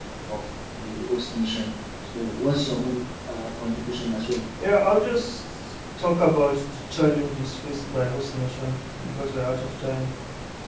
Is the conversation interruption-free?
Yes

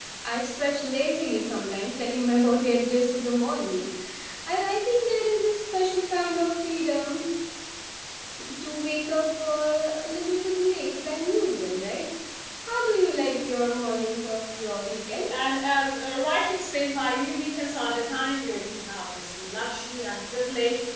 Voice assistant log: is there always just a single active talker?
Yes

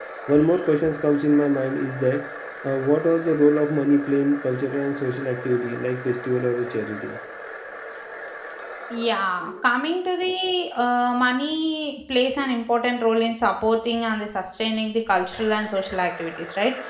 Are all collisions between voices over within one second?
Yes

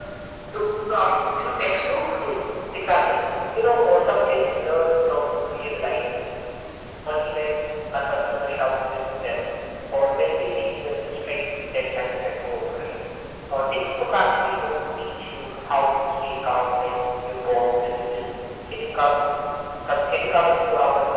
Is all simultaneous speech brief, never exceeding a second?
Yes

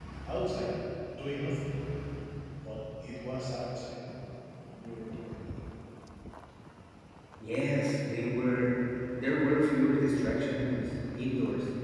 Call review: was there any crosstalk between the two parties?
No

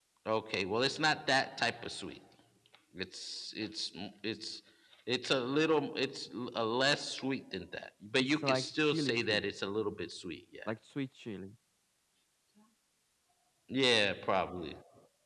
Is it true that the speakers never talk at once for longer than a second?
No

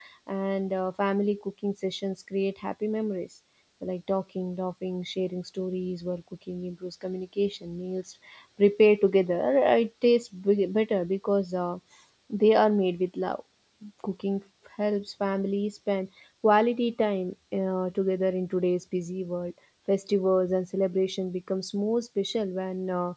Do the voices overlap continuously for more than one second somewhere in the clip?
No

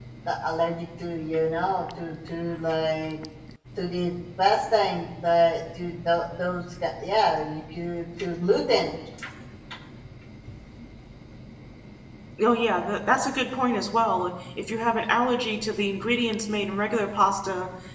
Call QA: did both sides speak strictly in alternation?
Yes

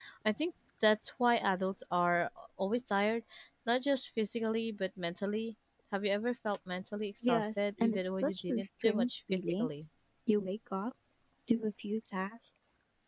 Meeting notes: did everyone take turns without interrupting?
No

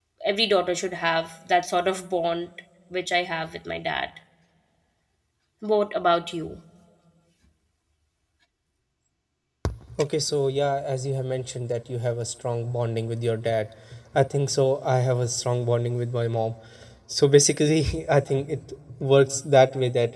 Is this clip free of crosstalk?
Yes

